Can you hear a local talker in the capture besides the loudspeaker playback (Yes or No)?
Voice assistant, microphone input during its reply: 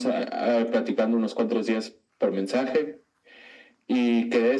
No